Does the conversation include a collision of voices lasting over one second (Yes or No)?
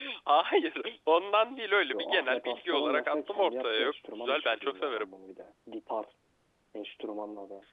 Yes